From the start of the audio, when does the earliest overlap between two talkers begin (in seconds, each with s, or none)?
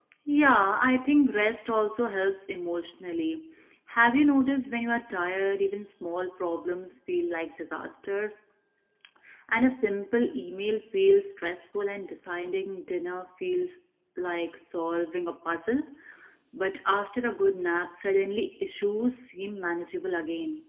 none